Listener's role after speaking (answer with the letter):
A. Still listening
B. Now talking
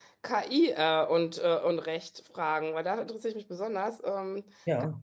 A